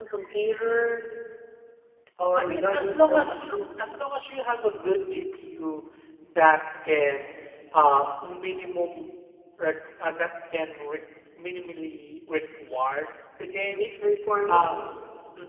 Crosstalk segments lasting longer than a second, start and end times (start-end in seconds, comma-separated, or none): 2.4-3.6